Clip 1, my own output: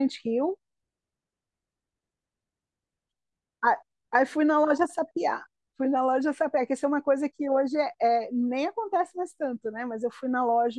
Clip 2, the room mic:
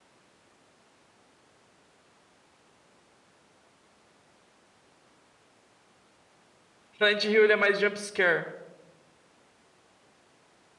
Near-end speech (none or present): present